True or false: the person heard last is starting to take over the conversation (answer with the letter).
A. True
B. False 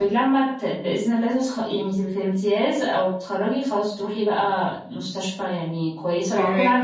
B